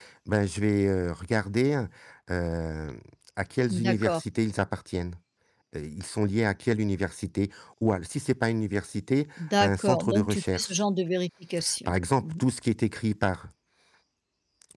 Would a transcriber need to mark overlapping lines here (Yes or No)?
Yes